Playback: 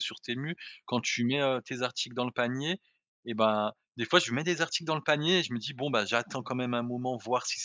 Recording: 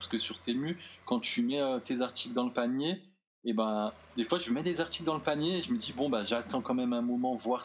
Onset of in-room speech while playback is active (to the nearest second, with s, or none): none